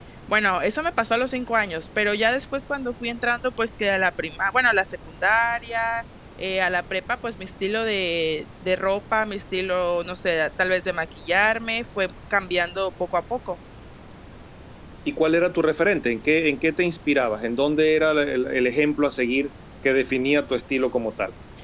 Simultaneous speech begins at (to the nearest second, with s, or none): none